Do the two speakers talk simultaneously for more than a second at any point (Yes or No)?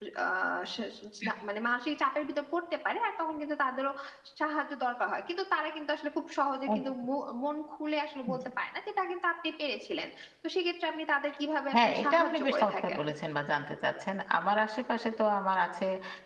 Yes